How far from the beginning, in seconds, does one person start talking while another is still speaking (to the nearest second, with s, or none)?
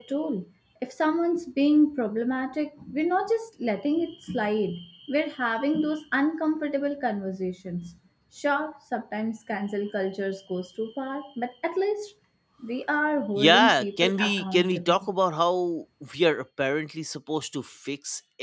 13 s